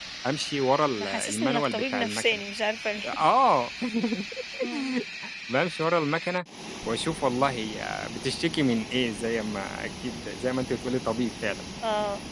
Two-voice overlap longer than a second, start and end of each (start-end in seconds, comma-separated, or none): 1.0-2.4